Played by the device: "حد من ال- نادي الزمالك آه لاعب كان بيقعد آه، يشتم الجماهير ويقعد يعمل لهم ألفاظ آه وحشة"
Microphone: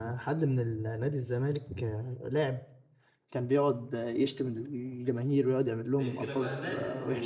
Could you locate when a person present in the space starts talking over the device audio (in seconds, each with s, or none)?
6.0 s